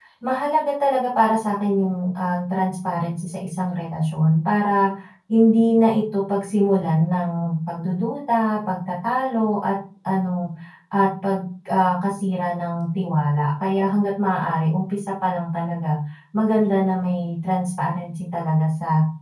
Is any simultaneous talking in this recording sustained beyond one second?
No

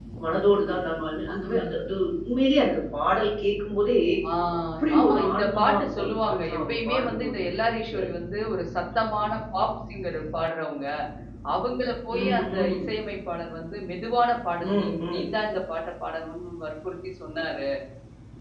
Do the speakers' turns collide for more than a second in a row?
Yes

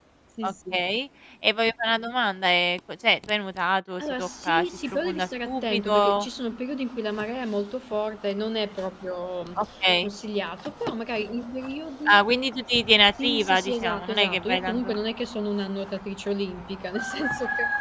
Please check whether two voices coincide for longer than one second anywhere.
Yes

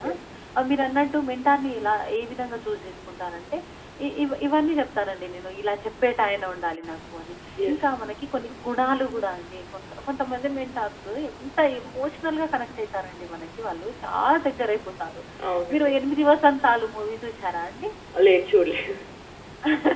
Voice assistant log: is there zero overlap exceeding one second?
Yes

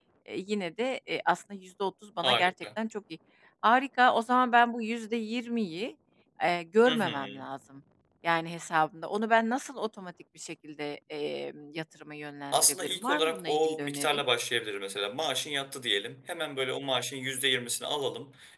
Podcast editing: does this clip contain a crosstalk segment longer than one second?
Yes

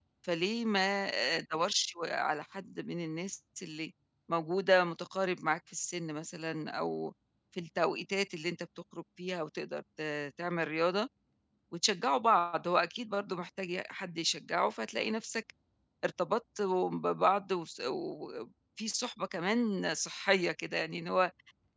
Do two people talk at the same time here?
No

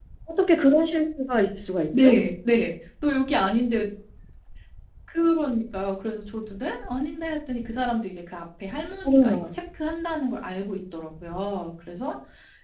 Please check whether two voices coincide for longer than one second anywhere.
No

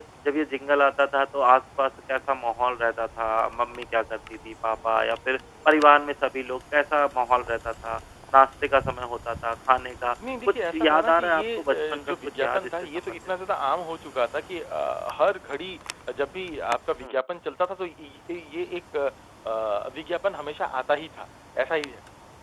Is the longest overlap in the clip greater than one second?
Yes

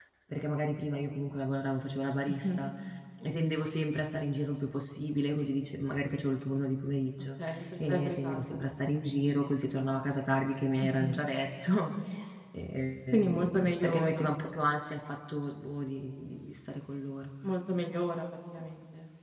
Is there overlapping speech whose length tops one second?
Yes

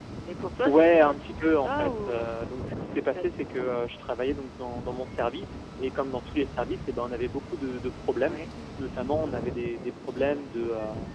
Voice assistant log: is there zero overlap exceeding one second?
No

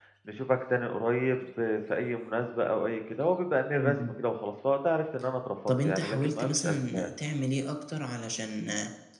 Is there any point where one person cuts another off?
Yes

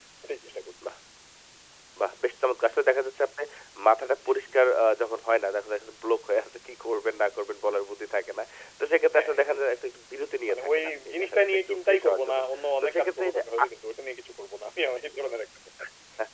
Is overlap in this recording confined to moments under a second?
No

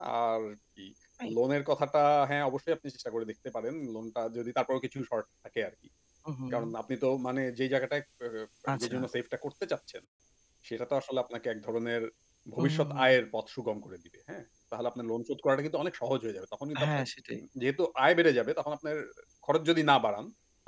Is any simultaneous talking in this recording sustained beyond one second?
No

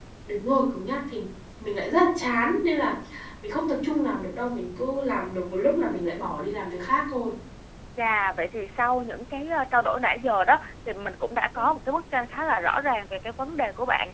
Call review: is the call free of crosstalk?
Yes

